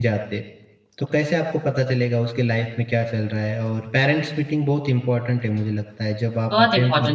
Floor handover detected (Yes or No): Yes